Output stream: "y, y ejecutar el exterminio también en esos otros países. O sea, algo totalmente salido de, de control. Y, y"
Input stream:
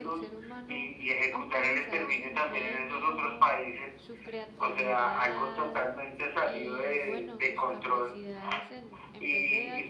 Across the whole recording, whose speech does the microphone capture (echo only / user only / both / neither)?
both